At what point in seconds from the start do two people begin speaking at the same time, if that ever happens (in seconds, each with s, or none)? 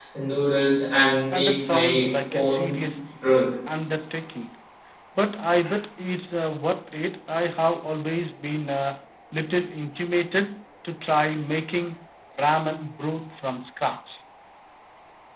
1.3 s